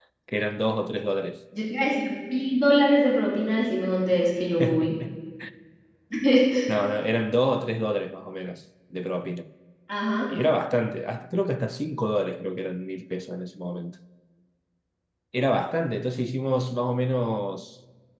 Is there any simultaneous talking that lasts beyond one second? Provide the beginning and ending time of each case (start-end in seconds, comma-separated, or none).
none